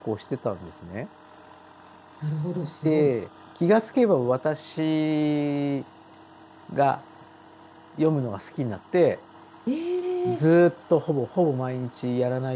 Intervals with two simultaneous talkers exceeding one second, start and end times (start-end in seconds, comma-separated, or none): none